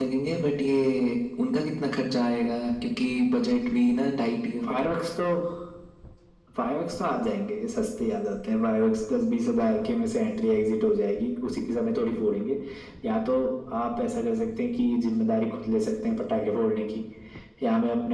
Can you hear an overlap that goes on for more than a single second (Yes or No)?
No